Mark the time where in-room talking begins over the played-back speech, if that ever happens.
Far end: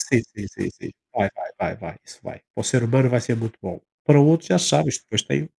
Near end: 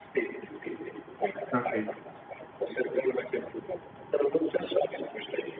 1.5 s

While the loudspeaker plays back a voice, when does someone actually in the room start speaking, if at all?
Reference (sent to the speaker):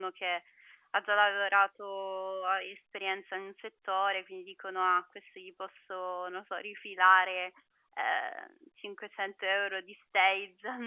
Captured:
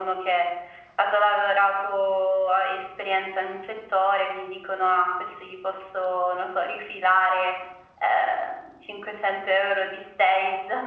none

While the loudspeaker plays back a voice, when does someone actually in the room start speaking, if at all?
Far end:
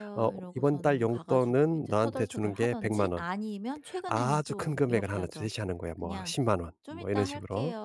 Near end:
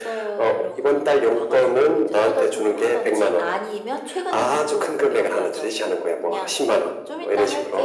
none

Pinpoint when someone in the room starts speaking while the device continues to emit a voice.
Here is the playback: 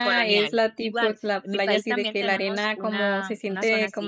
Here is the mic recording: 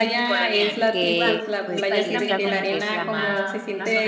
0.9 s

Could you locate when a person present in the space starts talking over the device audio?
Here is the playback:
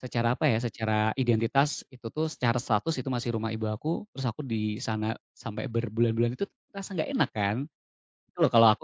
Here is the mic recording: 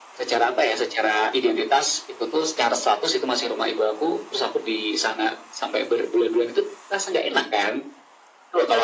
none

